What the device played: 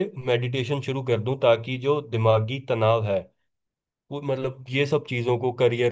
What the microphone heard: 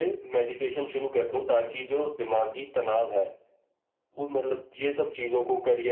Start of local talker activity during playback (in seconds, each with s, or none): none